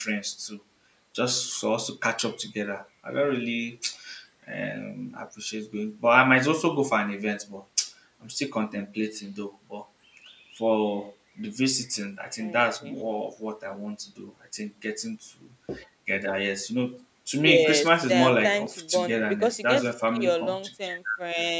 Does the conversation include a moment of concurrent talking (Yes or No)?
Yes